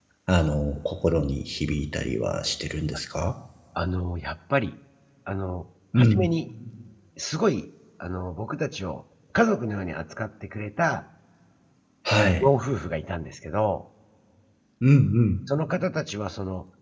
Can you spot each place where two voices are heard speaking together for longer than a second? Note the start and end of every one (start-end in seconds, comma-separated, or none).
none